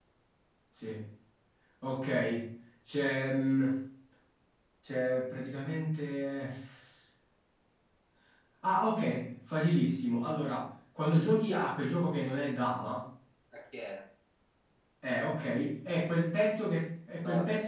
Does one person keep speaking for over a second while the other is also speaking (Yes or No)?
No